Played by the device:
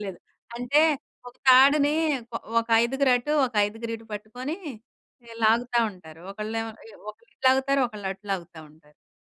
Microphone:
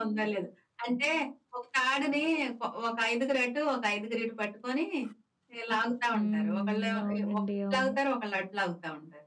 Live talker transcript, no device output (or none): హ్మ్. అవునండి. అవును.